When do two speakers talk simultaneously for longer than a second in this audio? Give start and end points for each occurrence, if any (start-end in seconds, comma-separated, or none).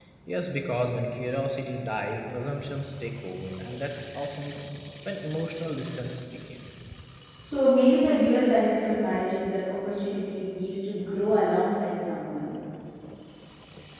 none